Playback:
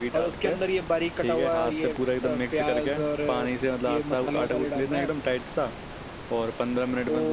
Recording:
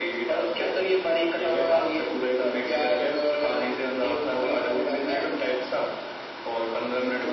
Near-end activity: none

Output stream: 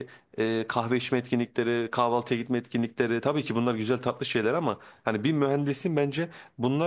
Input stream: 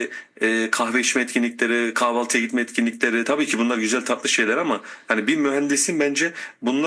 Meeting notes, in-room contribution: none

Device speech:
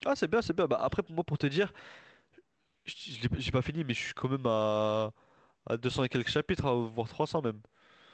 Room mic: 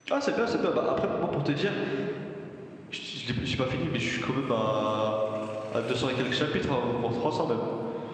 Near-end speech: none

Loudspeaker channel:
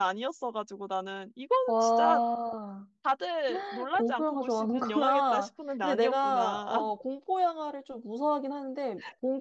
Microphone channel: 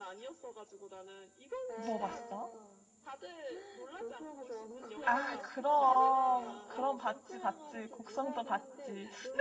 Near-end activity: present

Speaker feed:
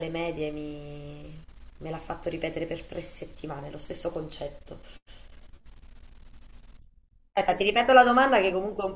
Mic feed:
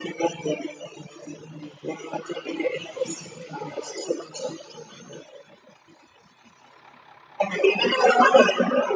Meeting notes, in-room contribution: none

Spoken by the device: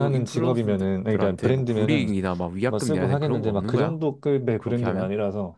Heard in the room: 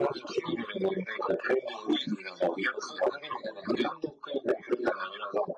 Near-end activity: none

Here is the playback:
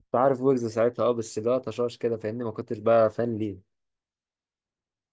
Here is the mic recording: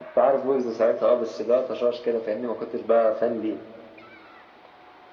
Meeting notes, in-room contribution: none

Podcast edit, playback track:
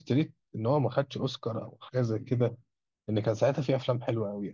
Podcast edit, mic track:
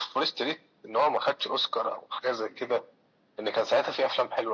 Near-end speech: none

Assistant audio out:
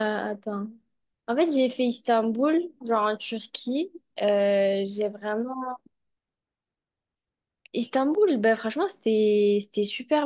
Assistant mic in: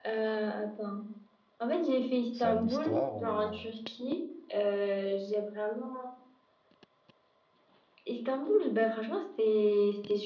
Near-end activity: present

